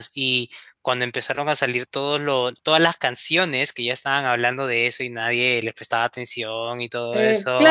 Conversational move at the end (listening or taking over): taking over